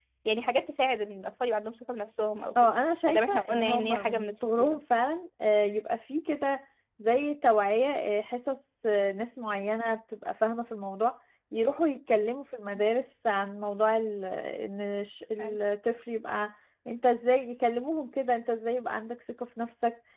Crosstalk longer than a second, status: present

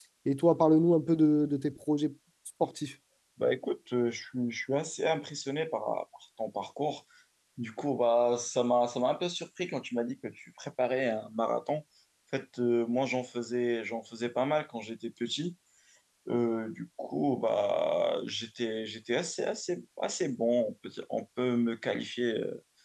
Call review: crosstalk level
none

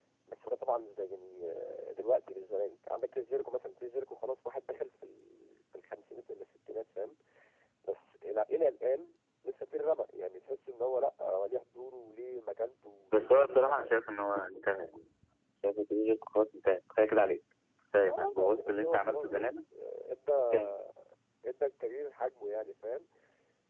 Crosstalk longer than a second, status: present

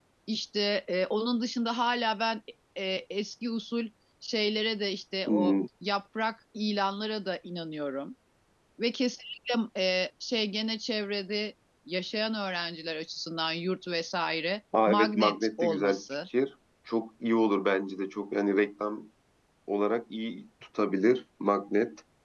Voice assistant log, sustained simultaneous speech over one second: present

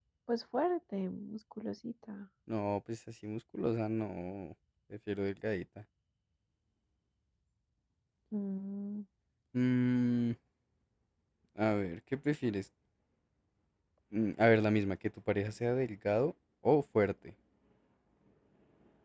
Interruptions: none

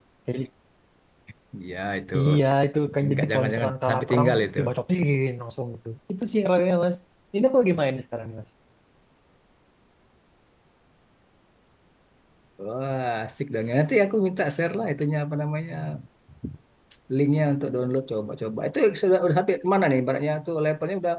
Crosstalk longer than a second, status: present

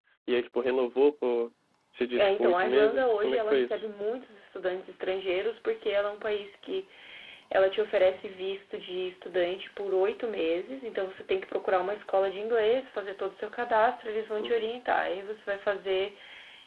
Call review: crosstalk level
present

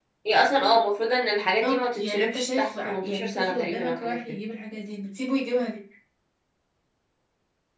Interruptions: present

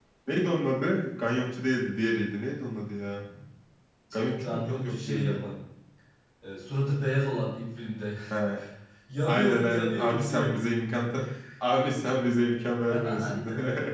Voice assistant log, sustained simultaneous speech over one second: present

